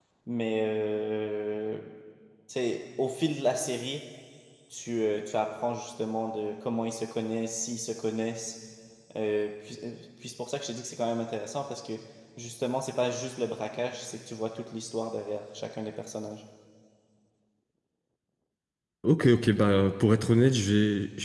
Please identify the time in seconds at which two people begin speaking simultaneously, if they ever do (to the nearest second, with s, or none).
none